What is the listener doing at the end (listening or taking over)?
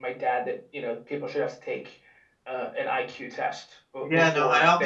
taking over